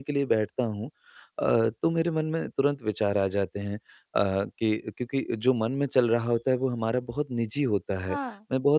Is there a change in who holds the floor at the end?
No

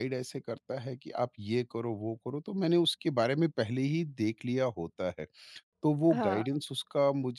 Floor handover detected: No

